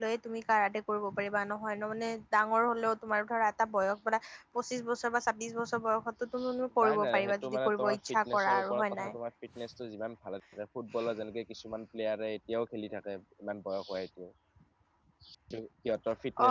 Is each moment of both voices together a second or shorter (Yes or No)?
No